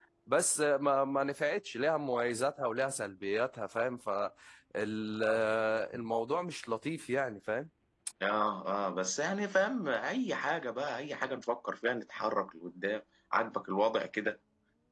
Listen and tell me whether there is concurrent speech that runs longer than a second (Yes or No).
No